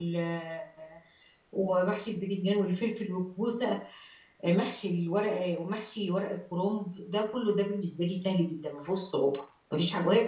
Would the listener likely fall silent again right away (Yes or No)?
Yes